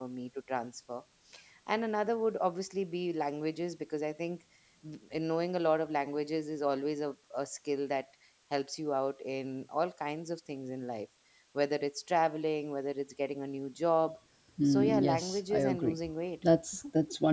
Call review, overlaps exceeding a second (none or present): present